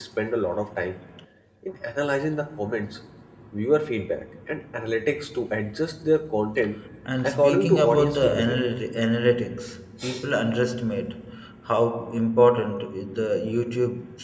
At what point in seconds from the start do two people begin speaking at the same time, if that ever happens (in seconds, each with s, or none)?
7.2 s